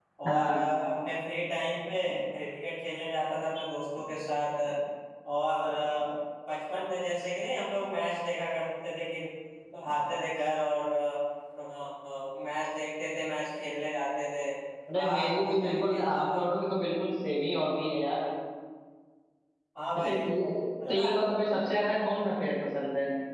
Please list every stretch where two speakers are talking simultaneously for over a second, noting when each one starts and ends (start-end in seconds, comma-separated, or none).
15.0-16.4